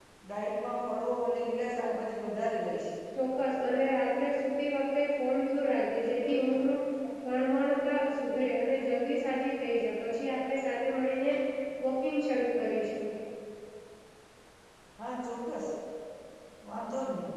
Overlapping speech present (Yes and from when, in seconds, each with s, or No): No